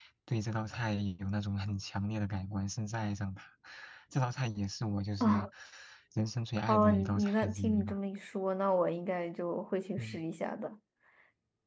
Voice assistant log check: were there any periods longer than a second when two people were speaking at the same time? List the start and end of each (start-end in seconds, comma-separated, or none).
6.7-8.0